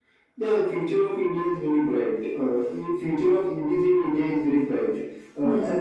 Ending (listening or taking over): listening